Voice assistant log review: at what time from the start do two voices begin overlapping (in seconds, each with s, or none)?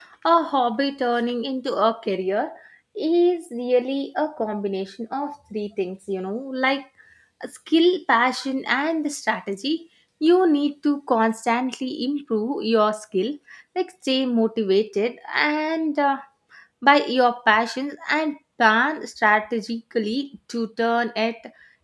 none